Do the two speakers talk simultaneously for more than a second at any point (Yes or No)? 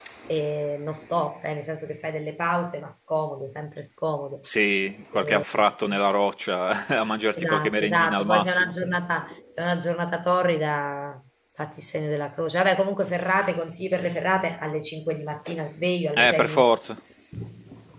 Yes